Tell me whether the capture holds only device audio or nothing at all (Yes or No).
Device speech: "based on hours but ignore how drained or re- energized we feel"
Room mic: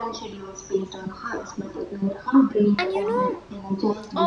No